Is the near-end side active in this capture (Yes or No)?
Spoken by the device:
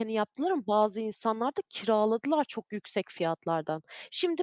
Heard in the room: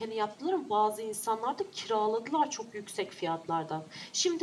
No